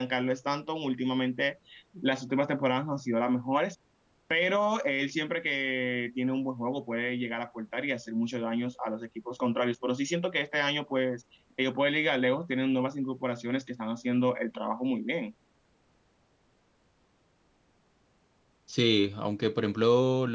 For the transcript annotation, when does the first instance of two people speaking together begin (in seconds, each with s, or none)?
none